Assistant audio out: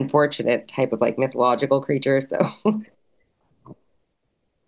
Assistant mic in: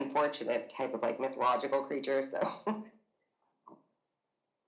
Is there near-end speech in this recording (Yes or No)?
No